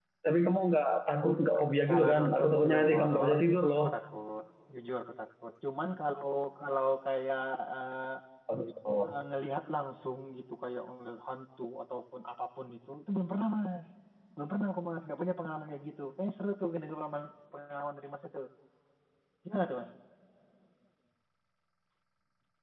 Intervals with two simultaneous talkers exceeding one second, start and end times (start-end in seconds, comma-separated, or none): 1.9-3.3